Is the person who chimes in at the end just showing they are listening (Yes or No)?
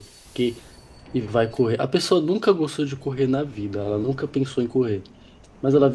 Yes